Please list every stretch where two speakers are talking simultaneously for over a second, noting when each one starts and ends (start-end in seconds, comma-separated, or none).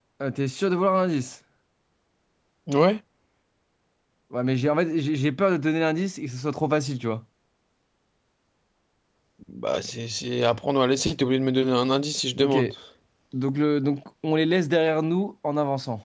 none